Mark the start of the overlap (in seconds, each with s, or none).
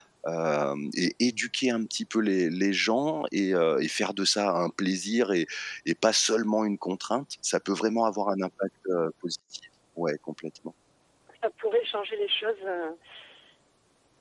none